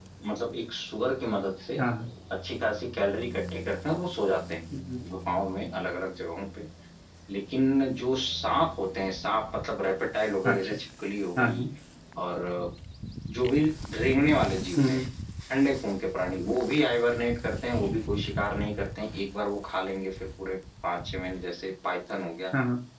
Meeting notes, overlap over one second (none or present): none